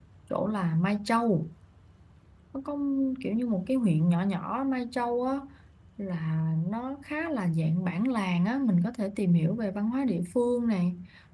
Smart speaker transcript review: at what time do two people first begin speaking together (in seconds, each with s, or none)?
none